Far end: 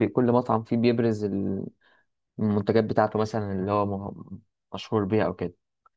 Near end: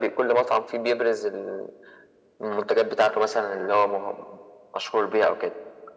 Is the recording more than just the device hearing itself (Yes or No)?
No